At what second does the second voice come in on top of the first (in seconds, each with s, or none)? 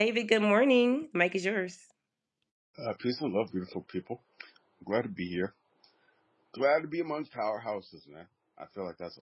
none